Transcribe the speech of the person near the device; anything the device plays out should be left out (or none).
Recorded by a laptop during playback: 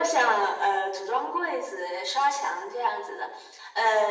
none